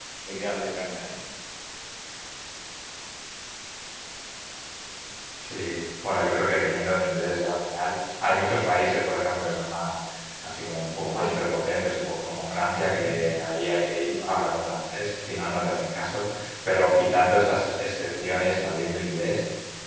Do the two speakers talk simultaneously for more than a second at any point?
No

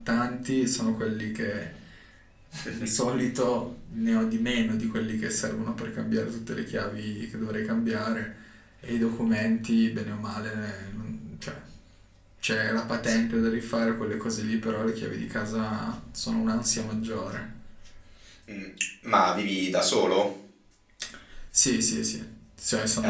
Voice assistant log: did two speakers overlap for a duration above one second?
No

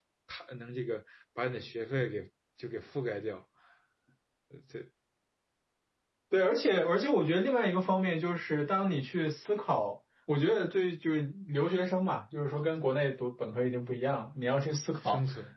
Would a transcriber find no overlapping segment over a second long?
Yes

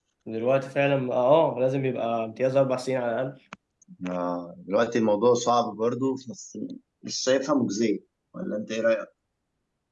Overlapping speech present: No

